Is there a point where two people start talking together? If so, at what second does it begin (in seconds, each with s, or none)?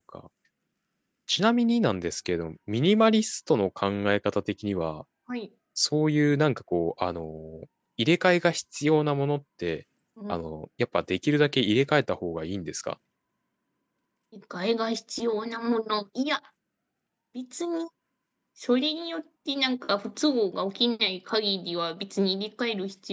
none